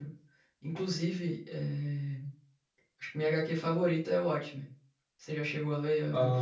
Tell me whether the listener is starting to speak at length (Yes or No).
Yes